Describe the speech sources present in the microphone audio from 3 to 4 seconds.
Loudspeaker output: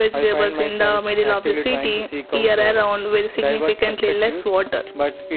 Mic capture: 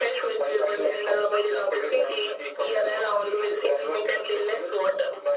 echo only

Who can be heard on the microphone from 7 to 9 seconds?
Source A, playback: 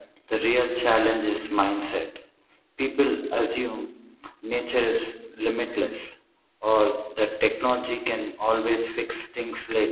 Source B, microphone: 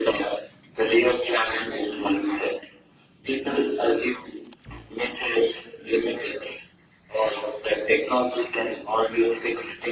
echo only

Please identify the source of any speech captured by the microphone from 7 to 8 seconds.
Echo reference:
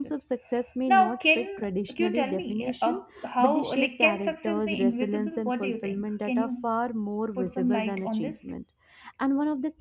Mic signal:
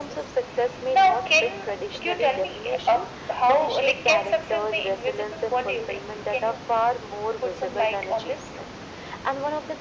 echo only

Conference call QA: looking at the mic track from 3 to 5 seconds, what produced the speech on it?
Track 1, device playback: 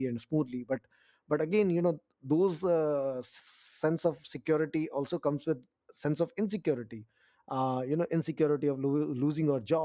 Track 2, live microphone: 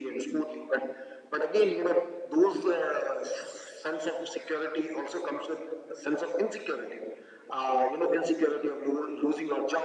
echo only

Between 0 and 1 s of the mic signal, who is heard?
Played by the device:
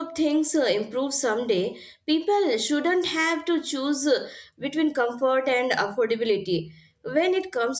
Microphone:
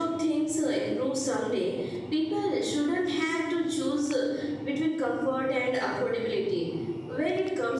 echo only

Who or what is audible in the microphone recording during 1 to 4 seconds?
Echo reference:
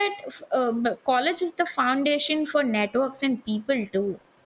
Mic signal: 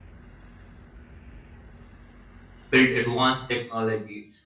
user only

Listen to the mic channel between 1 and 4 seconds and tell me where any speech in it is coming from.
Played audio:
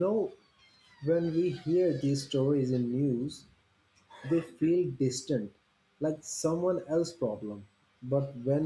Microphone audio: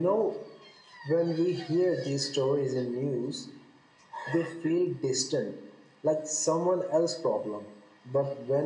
echo only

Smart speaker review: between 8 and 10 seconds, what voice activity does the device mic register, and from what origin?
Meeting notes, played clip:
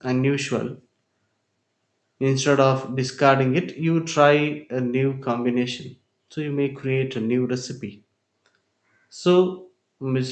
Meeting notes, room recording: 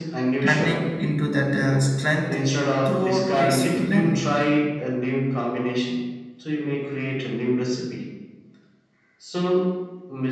echo only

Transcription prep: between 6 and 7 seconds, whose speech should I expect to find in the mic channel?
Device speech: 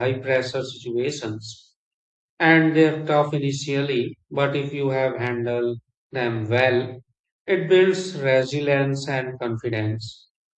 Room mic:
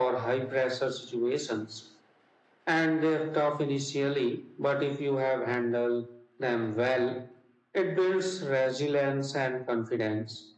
echo only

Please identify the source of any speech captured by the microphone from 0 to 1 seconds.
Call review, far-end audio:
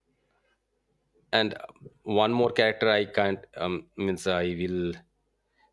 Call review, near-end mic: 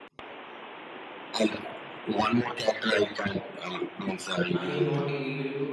neither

